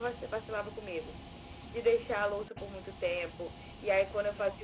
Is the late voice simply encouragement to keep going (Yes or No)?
Yes